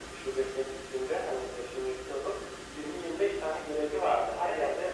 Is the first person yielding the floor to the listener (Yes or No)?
No